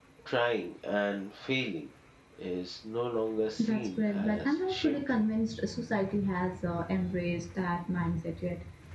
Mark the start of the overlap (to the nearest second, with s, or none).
4 s